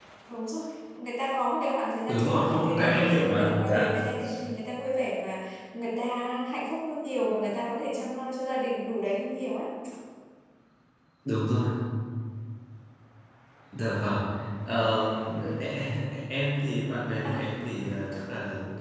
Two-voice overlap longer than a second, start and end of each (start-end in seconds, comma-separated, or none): 2.1-3.9